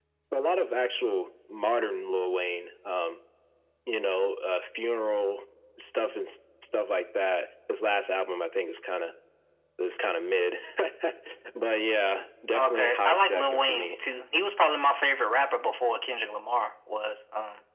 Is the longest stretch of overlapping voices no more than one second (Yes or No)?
No